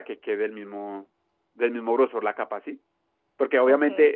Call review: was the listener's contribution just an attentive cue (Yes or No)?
Yes